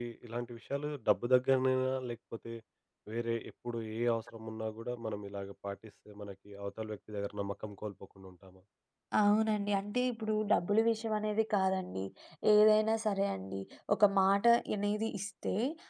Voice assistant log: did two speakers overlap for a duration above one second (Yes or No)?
No